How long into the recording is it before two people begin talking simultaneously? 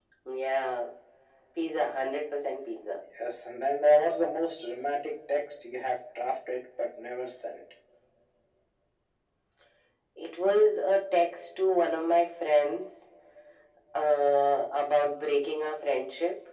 none

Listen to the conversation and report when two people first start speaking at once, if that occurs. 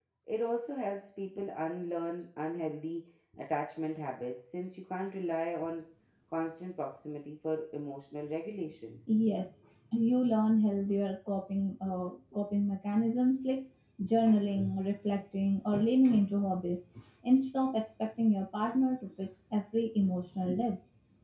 none

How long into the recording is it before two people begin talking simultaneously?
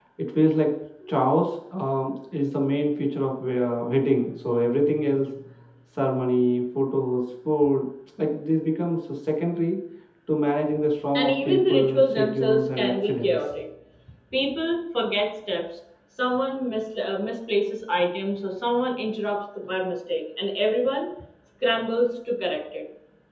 11.2 s

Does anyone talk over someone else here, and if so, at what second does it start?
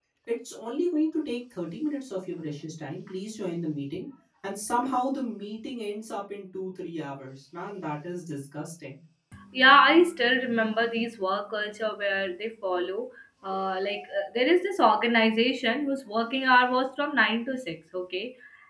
none

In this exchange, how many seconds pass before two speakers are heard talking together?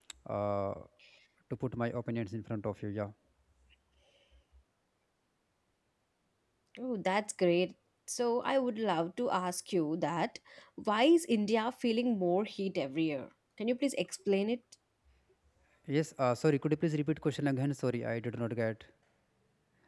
none

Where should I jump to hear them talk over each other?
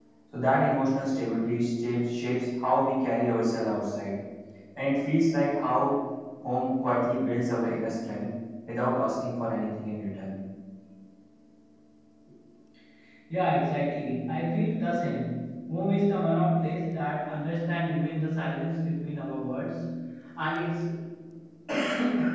none

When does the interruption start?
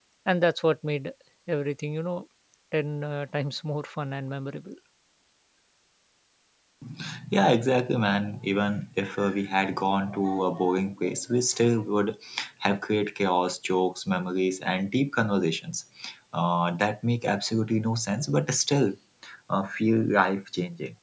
none

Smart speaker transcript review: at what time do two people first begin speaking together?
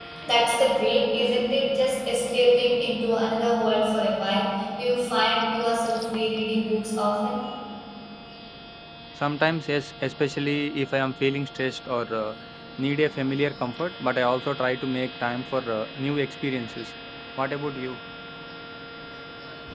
none

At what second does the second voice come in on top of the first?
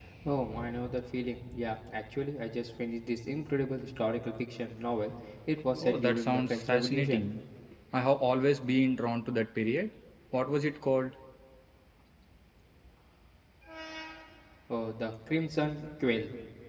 5.8 s

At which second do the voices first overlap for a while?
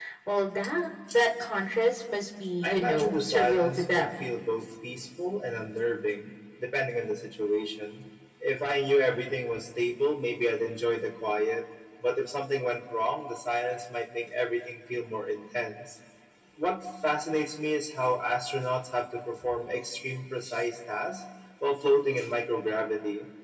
2.6 s

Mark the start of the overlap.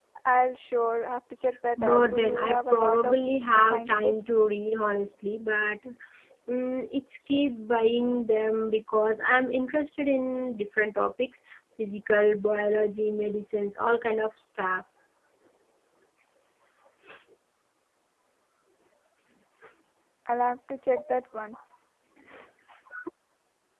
1.8 s

